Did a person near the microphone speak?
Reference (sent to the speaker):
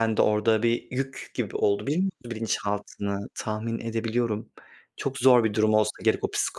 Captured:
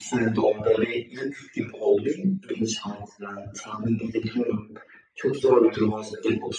No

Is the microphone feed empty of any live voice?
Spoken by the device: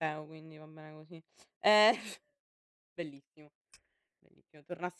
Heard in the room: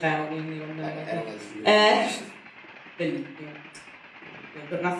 No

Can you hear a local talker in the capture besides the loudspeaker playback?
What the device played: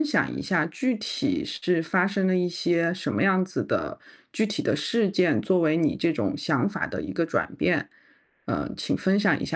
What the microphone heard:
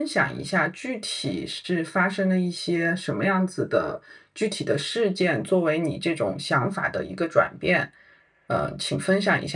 No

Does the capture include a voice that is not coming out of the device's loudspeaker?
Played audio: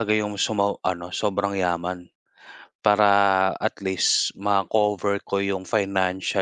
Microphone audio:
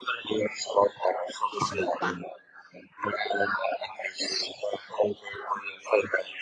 Yes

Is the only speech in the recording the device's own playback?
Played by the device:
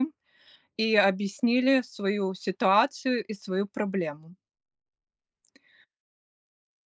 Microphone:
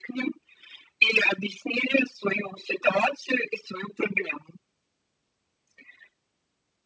Yes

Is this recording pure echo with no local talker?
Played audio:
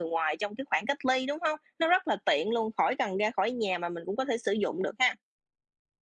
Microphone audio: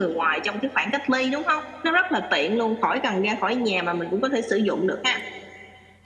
Yes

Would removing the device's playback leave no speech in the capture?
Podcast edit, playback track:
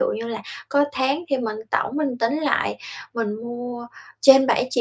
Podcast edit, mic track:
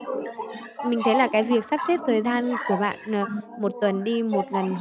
No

